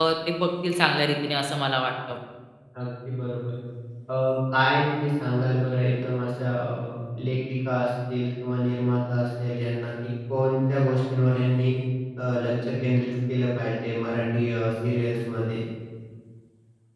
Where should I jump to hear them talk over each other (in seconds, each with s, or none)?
none